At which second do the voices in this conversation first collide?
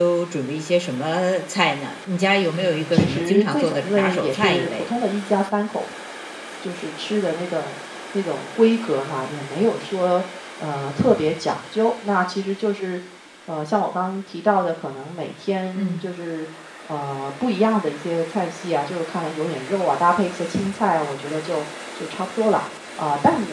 3 s

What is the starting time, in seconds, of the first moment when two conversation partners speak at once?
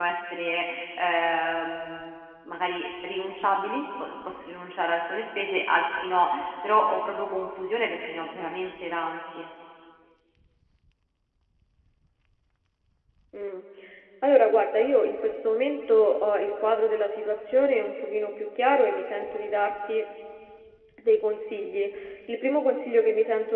none

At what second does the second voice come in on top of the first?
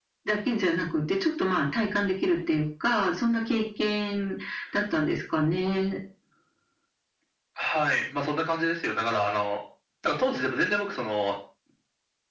none

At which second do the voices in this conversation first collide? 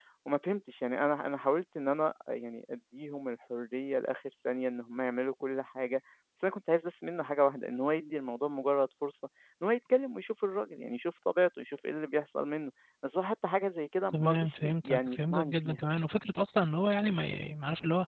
14 s

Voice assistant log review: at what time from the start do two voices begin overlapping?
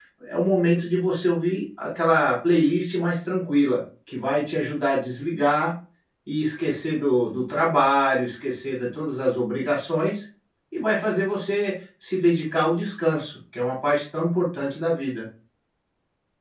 none

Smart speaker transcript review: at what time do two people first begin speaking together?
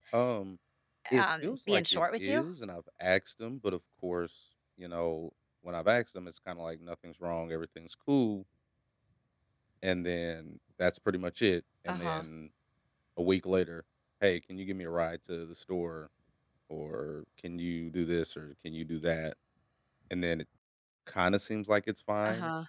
1 s

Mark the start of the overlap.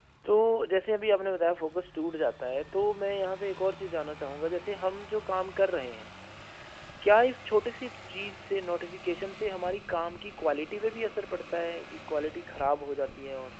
none

